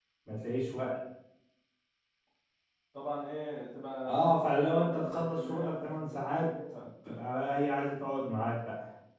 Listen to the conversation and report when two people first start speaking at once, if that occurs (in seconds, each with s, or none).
4.0 s